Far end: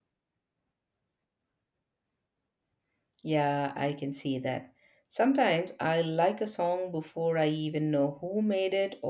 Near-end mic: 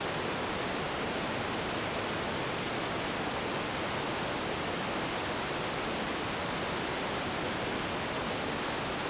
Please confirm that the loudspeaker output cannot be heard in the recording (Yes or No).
Yes